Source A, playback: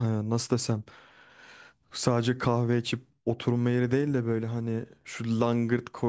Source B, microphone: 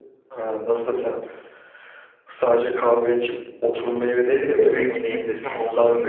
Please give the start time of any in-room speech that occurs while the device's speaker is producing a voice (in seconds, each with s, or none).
4.2 s